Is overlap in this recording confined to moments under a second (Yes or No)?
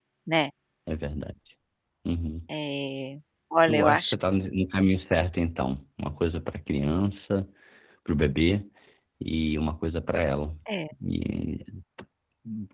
Yes